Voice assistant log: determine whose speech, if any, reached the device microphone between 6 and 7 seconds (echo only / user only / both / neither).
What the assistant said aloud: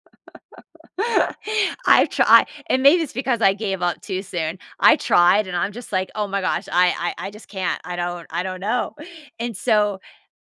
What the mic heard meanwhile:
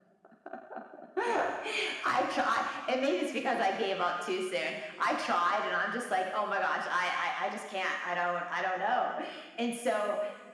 echo only